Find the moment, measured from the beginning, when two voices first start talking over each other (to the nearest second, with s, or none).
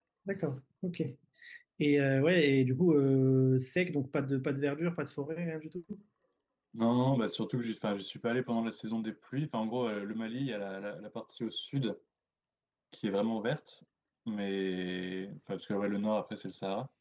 none